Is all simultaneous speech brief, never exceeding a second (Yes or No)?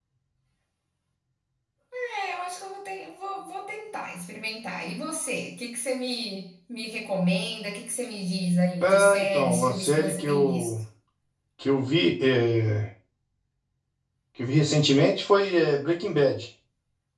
No